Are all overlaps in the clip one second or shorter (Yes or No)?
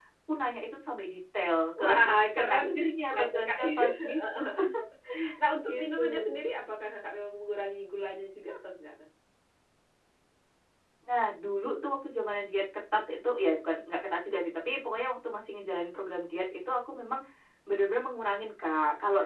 No